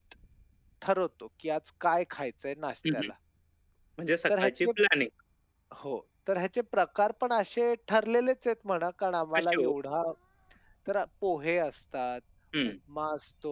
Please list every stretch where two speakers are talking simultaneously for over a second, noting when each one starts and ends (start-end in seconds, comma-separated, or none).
none